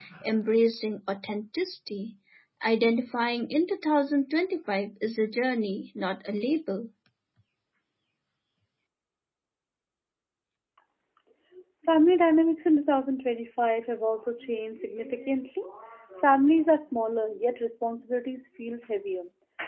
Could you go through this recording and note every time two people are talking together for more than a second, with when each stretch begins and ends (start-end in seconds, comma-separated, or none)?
none